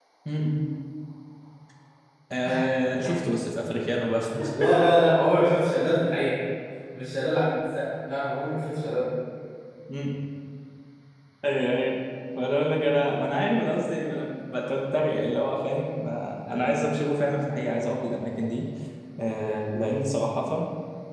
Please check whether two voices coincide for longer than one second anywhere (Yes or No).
No